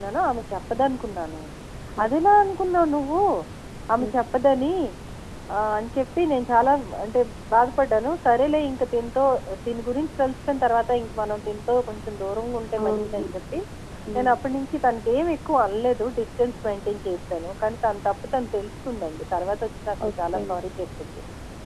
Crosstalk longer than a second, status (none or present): none